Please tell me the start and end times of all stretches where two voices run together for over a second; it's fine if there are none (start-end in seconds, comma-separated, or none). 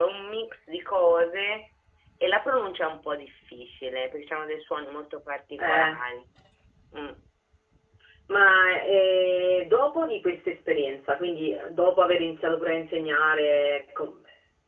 none